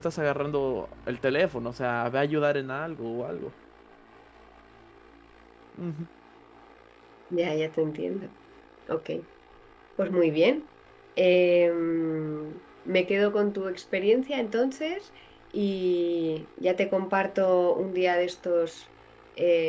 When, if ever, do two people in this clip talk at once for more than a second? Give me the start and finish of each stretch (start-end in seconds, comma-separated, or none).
none